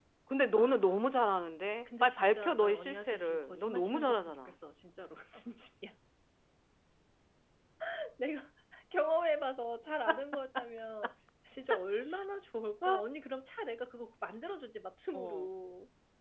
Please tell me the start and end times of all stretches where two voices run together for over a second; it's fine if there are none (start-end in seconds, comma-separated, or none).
2.0-4.5